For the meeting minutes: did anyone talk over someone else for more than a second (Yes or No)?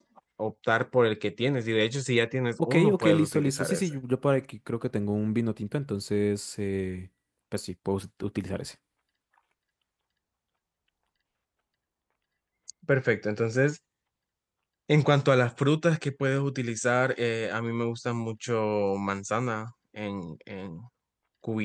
Yes